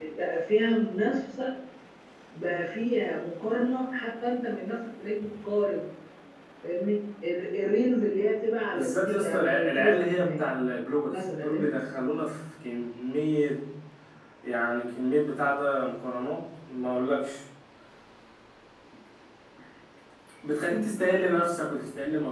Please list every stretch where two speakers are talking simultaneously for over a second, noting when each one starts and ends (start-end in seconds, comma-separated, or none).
8.7-10.4